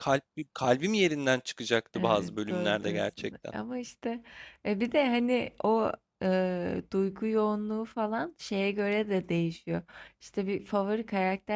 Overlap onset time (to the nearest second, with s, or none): 2 s